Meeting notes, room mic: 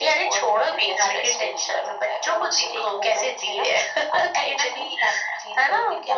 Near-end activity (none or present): none